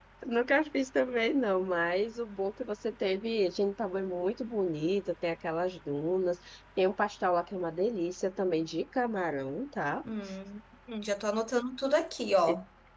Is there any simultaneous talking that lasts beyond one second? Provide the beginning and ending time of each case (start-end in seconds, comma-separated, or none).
none